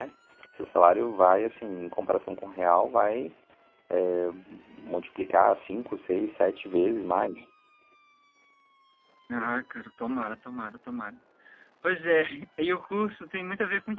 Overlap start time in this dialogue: none

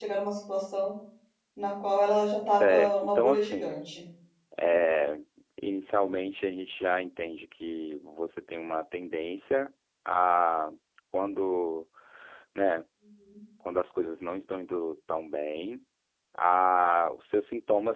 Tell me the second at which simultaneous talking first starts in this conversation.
2.5 s

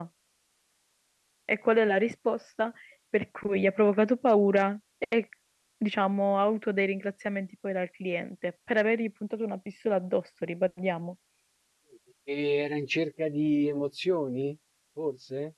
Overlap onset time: none

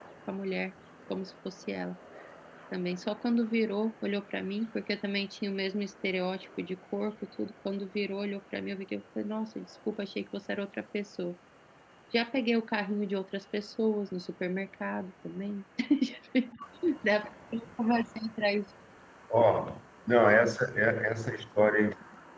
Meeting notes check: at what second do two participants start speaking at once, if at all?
none

